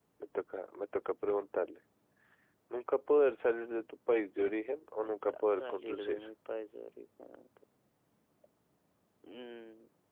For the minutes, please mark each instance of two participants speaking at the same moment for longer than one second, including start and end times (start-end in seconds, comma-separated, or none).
5.0-6.2